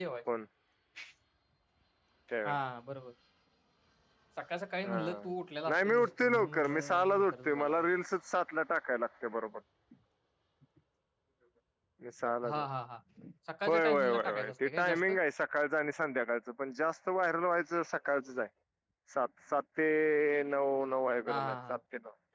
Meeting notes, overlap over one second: present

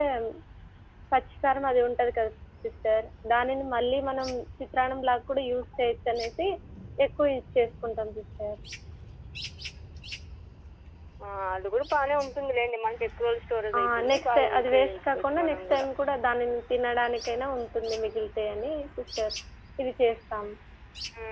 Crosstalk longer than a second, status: present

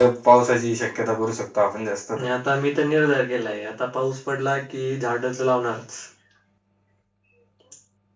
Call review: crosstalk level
none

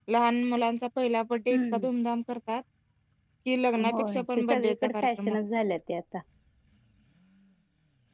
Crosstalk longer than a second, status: present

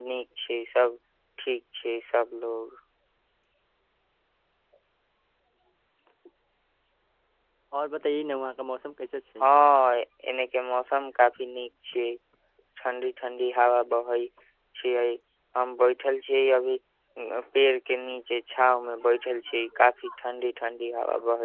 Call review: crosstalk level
none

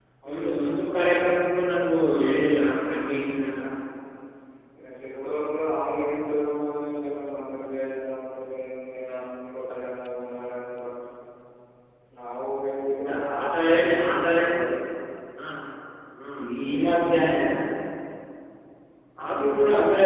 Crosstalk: present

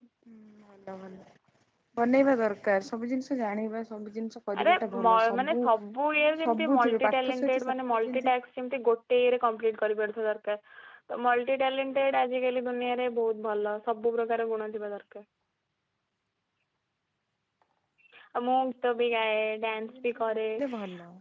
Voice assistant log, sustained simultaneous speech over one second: present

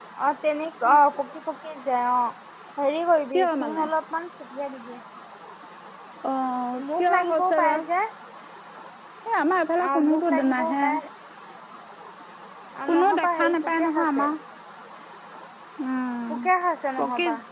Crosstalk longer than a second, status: present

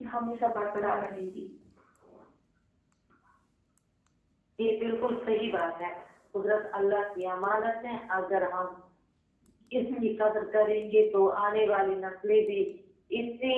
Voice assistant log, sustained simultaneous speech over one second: none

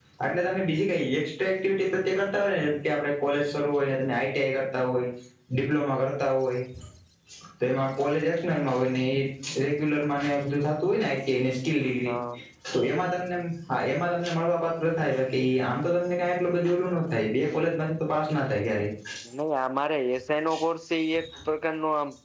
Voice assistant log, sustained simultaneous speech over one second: none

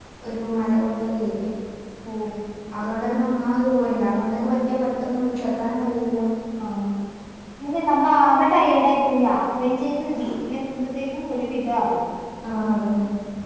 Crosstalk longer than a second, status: none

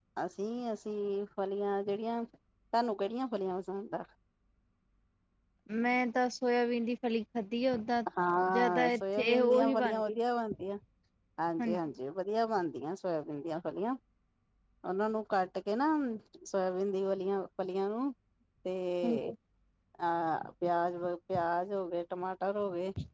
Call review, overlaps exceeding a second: present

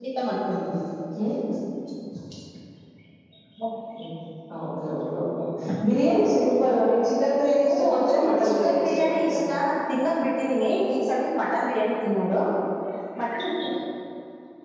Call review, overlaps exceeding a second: present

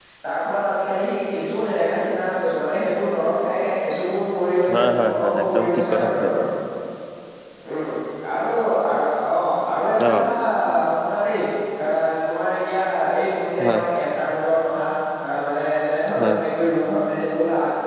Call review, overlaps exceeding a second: present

